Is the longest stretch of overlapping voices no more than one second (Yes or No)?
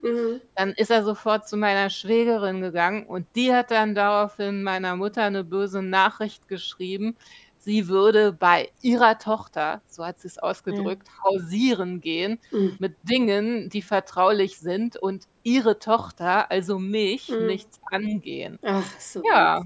Yes